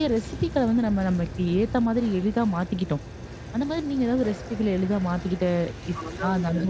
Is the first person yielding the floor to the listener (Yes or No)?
Yes